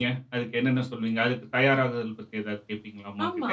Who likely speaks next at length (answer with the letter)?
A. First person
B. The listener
B